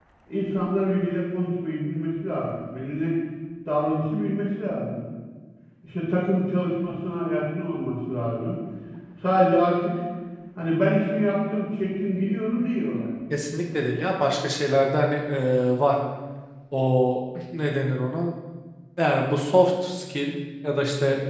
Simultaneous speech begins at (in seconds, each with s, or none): none